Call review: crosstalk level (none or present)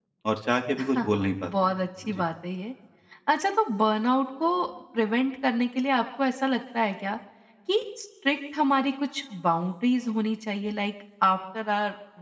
present